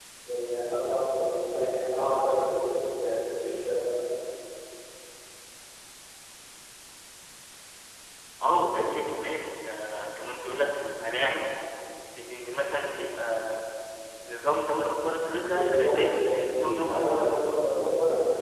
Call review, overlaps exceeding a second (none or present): present